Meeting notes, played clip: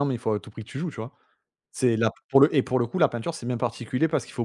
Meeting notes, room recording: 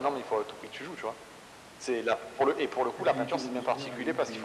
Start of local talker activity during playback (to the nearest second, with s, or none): 3 s